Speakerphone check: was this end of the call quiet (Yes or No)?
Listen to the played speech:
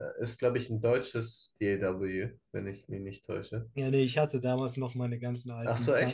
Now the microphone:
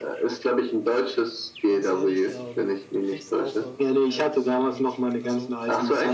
No